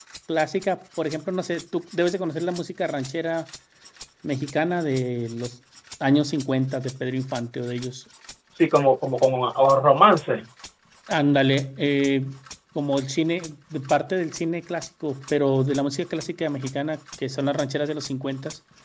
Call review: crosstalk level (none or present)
none